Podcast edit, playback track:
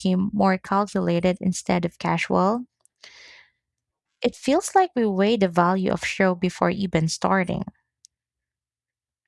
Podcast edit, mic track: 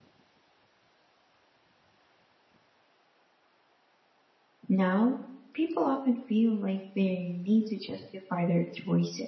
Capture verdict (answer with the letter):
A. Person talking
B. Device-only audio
A